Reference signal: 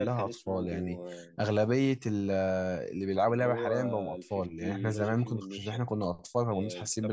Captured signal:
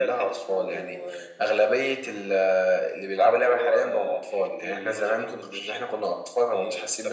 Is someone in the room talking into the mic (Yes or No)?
No